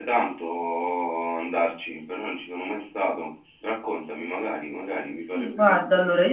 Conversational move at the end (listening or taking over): taking over